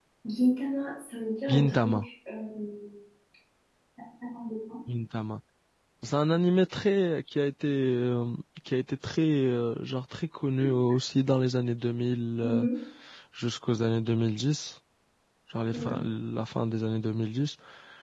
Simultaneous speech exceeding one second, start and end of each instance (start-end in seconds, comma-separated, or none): none